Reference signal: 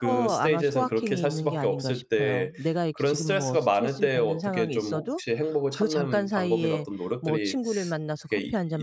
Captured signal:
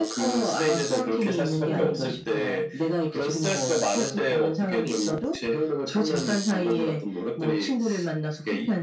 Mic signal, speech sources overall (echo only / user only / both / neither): both